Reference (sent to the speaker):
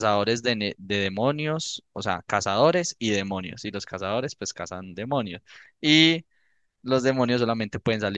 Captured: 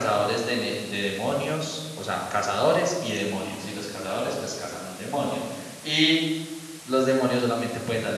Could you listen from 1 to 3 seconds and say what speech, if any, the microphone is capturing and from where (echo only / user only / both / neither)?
echo only